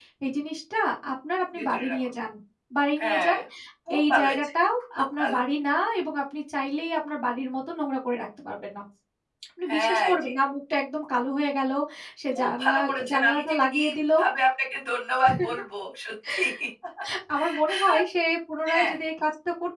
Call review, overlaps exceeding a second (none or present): present